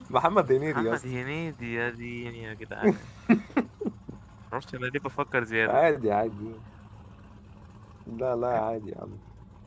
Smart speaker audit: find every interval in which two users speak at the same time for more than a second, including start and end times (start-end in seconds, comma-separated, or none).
none